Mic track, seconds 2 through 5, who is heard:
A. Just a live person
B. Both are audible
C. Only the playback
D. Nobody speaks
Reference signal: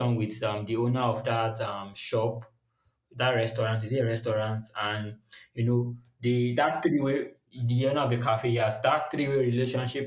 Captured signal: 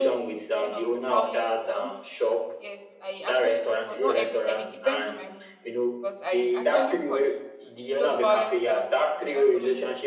B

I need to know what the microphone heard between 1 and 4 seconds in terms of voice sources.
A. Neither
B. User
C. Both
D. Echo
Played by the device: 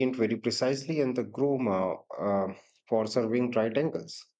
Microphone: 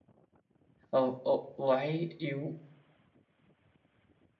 B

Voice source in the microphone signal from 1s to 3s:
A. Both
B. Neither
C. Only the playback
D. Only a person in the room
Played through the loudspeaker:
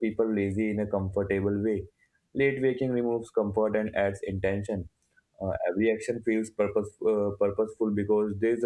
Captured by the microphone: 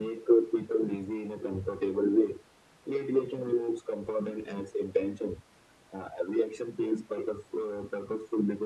C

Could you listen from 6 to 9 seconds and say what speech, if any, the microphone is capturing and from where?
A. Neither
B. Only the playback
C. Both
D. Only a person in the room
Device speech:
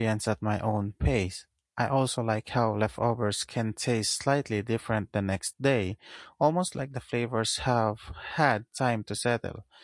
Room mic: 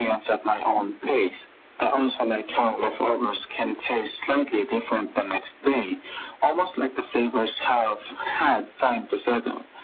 B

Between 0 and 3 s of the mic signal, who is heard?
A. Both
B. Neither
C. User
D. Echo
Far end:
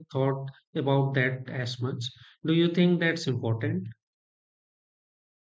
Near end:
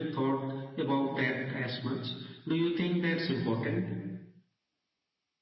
D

